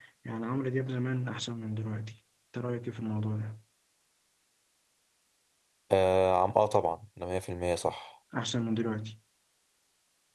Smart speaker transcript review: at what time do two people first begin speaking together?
none

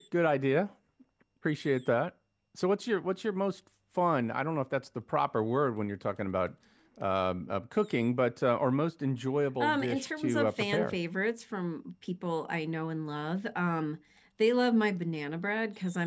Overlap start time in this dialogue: 9.6 s

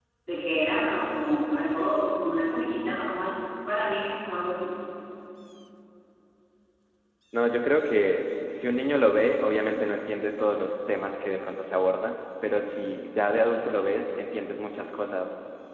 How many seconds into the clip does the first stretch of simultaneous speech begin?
none

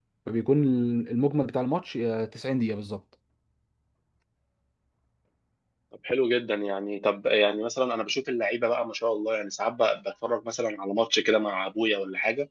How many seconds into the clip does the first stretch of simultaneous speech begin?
none

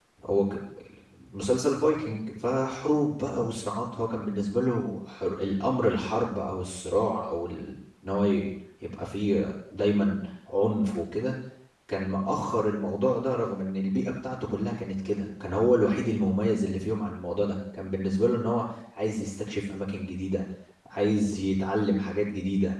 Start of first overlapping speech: none

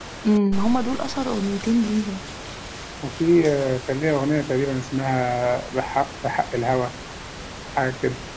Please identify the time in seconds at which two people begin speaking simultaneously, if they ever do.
none

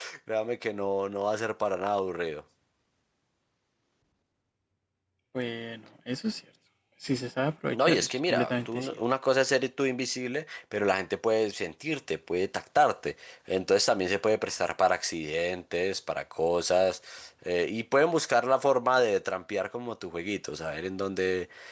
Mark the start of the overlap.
7.7 s

